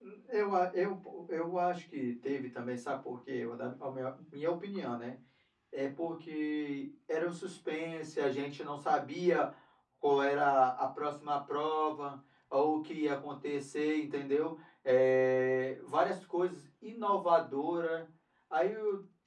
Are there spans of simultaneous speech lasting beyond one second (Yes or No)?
No